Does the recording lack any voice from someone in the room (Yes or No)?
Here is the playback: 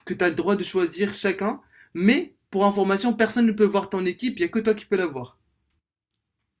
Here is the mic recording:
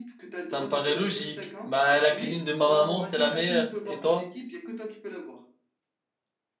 No